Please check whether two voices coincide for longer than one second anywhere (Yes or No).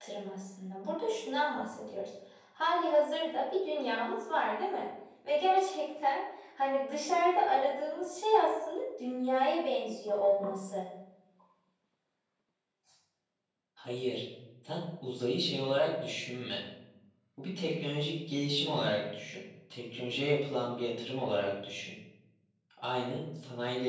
No